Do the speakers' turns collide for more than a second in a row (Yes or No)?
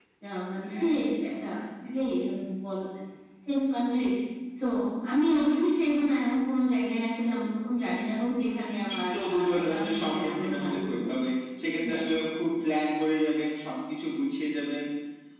Yes